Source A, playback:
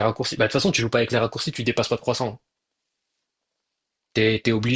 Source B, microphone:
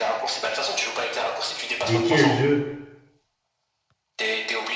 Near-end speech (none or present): present